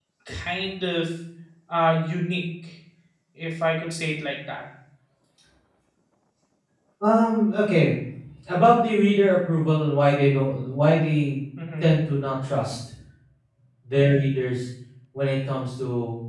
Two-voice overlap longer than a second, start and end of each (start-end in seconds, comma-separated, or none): none